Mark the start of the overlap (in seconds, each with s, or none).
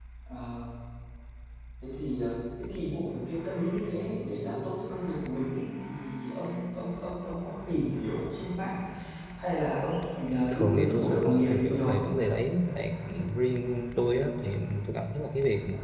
10.5 s